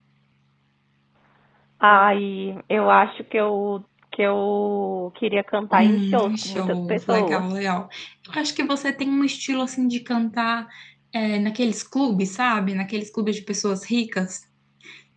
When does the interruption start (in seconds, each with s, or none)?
5.7 s